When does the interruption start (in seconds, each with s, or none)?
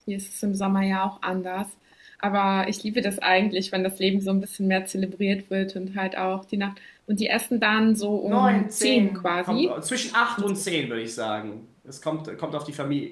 8.2 s